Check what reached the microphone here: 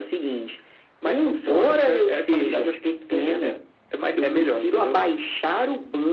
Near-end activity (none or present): none